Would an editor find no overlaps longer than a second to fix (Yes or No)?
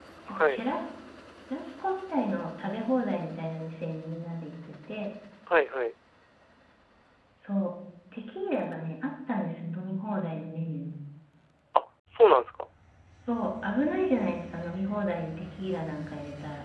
Yes